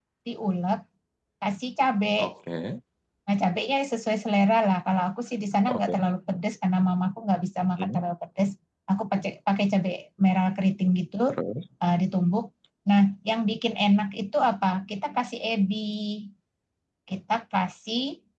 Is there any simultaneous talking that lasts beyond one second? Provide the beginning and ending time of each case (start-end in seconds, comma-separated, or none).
none